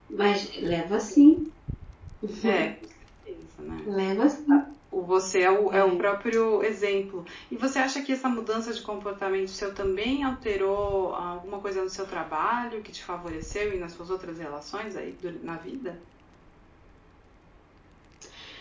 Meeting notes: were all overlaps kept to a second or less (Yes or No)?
Yes